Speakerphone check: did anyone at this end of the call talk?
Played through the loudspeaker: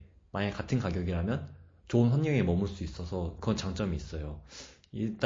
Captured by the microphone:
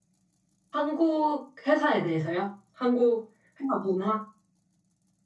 Yes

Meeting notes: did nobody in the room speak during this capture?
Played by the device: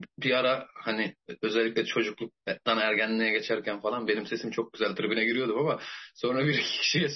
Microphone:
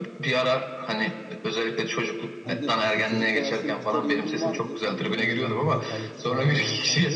No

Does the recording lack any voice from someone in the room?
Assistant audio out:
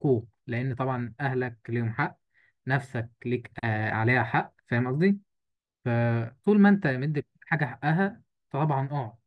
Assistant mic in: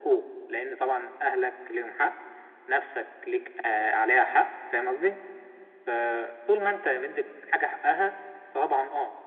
Yes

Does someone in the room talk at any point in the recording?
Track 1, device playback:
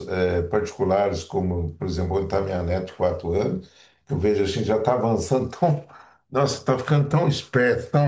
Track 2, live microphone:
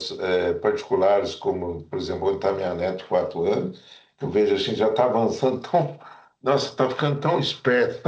No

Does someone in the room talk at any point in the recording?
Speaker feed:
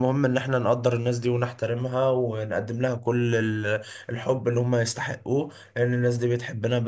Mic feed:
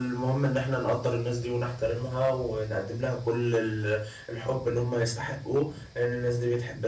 No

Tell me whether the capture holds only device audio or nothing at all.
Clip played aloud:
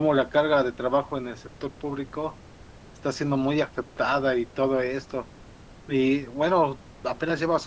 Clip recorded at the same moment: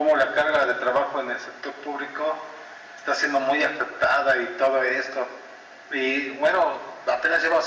Yes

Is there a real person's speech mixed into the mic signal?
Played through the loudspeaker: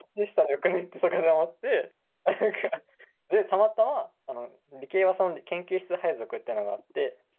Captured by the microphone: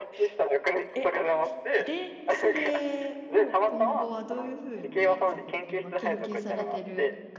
Yes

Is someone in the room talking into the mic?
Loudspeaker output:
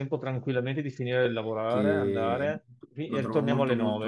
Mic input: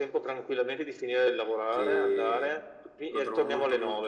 No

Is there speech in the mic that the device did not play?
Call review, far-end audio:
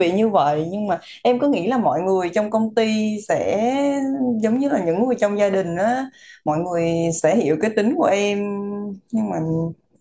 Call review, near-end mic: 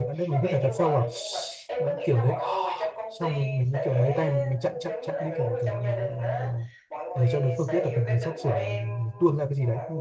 Yes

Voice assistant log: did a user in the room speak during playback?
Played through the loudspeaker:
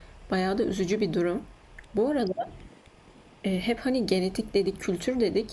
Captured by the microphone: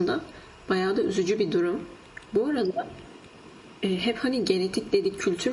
No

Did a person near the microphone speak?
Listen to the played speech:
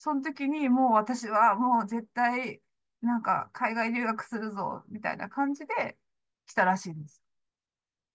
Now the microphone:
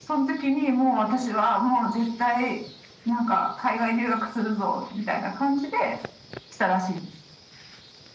No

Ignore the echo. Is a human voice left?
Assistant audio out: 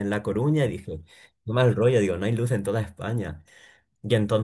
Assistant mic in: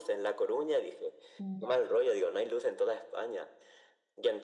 Yes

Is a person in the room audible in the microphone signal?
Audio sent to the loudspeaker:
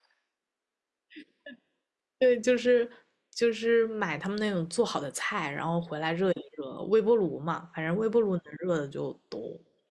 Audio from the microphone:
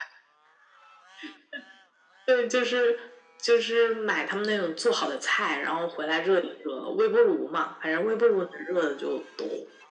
No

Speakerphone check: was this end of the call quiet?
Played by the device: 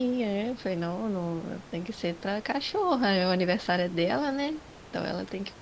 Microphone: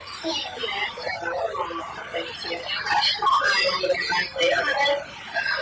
Yes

